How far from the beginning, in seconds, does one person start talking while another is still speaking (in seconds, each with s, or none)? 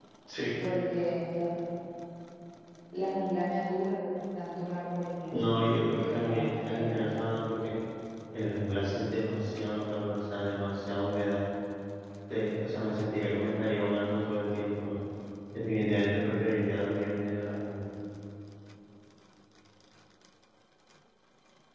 5.3 s